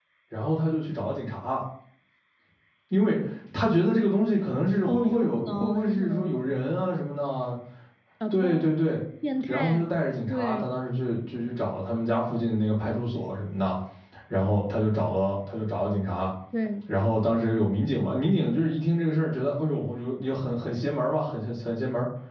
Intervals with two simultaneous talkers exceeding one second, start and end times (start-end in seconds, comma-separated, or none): 4.9-6.8